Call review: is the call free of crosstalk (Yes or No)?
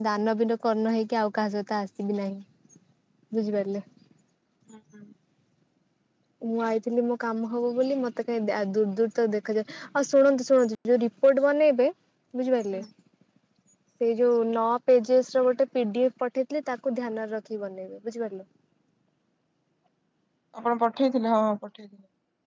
Yes